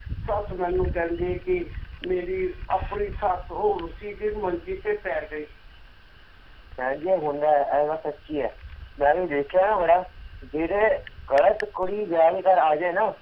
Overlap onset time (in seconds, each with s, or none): none